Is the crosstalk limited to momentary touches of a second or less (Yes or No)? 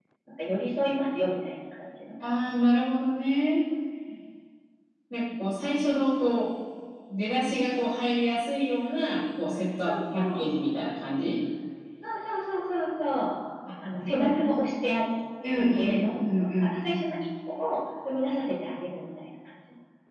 No